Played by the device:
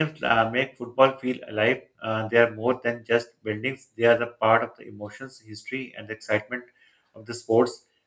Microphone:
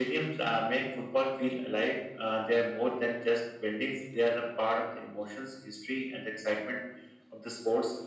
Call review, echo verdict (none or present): present